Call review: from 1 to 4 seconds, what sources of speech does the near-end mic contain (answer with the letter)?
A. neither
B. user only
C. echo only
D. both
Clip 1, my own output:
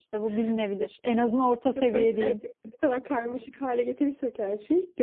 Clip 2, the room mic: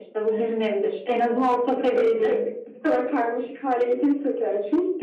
C